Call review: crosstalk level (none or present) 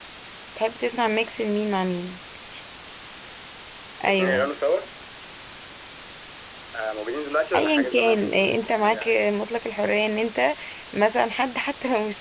present